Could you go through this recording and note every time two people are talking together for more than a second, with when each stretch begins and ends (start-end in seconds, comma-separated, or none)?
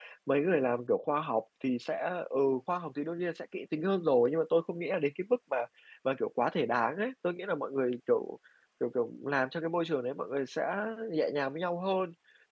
none